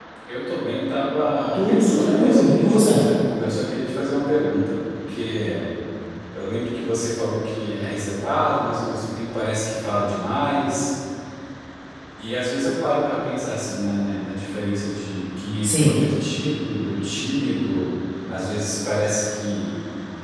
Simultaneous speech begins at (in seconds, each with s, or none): 1.5 s